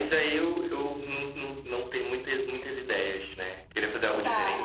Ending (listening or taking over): taking over